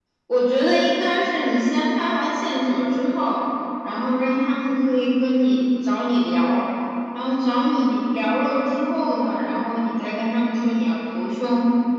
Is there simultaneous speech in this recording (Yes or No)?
No